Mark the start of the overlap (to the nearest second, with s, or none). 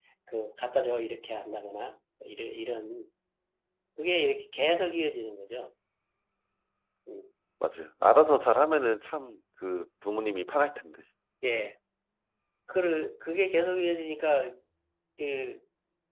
none